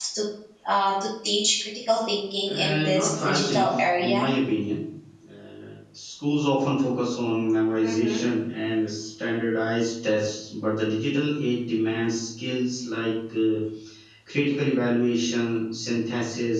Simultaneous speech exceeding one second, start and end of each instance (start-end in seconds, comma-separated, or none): 2.5-4.3